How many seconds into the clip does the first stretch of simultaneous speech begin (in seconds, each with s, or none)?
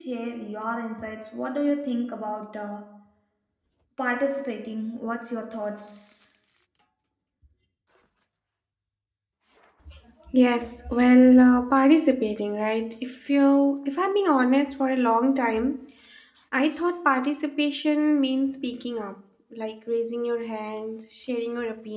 none